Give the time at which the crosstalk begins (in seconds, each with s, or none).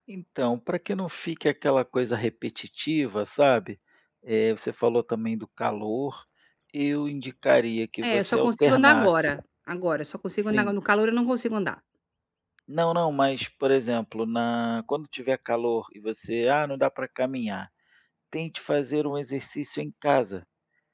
8.1 s